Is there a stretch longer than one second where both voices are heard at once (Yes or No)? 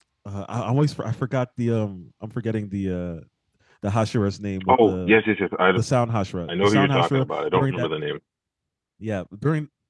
Yes